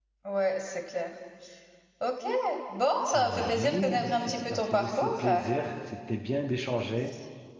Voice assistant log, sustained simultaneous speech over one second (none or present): present